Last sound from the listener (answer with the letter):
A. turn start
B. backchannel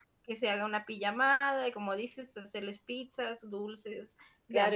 A